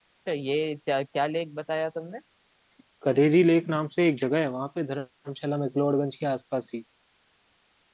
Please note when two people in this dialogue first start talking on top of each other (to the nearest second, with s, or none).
none